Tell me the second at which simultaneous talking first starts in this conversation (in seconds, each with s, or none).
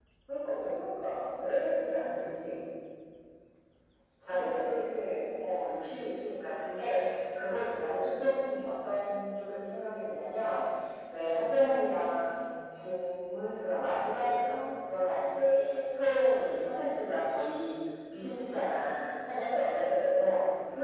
4.3 s